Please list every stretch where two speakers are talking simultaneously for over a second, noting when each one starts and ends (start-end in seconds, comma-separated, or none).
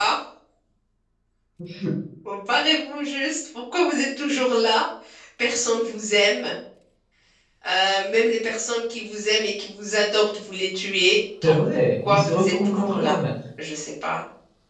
11.4-13.2